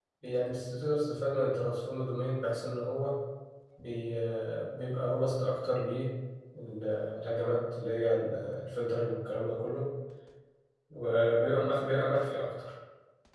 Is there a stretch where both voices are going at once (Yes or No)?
No